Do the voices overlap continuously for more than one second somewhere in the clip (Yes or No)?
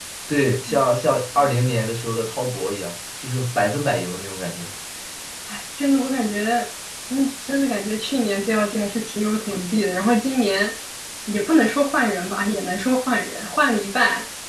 No